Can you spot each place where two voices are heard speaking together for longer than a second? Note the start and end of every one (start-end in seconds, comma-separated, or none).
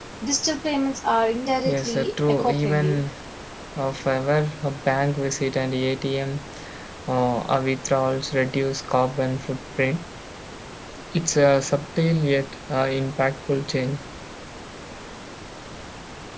1.6-3.0